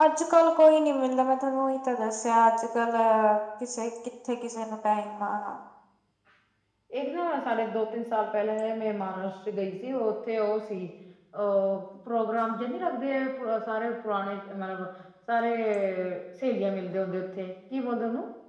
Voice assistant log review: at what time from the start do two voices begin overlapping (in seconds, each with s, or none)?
none